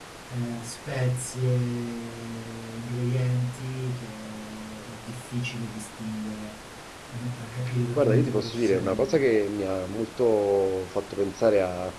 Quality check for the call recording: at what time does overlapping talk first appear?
8 s

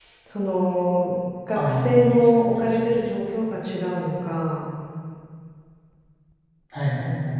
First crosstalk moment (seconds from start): 2 s

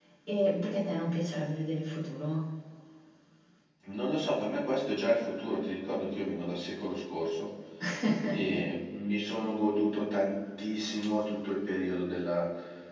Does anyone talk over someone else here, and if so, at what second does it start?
none

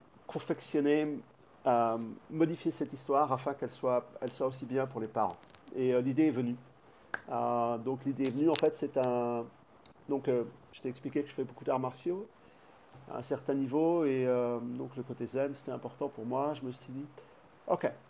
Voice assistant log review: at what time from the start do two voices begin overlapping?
none

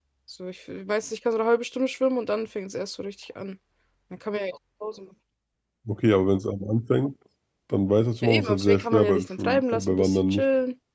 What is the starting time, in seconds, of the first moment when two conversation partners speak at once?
8 s

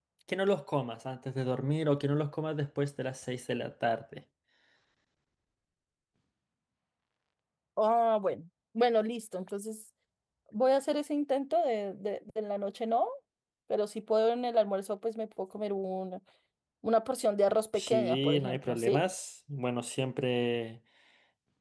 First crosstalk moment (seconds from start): 18 s

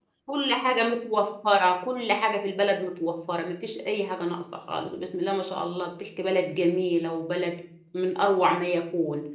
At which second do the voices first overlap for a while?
none

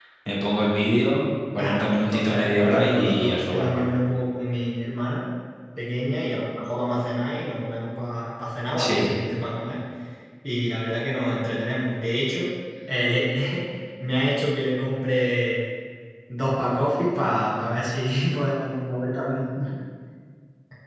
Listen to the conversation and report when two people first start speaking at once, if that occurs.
2 s

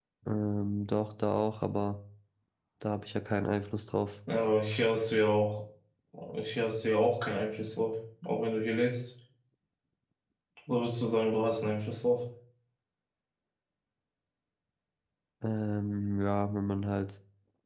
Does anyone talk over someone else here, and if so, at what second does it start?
none

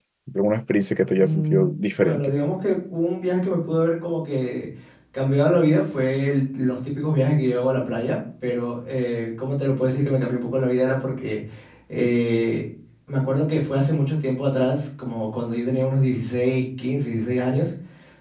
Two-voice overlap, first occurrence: 1 s

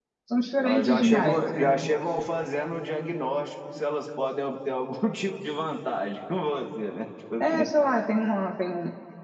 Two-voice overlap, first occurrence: 1 s

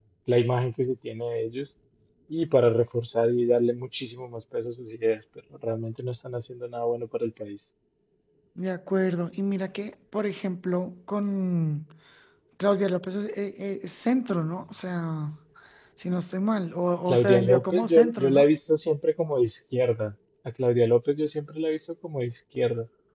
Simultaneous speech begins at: 17 s

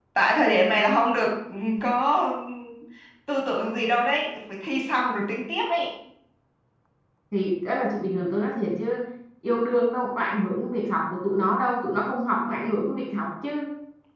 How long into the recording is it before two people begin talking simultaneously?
none

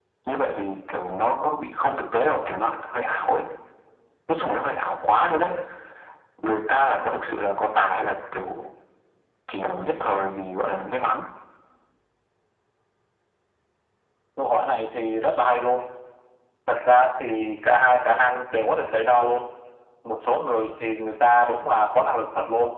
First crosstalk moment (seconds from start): none

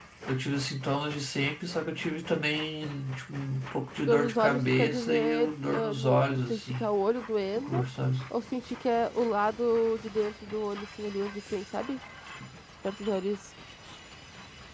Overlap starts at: 4 s

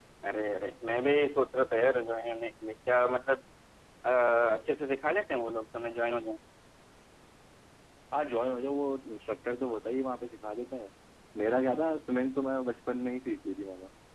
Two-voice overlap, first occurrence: none

